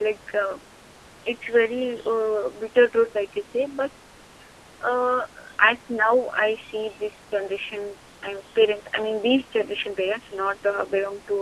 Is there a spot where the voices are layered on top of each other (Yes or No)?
No